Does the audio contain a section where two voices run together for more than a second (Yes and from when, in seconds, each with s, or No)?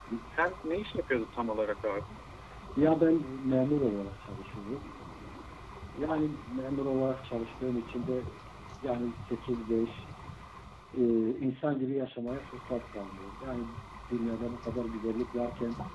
No